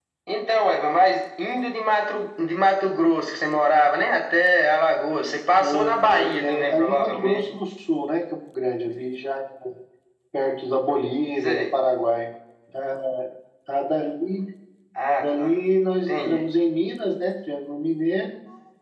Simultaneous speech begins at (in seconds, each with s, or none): 5.6 s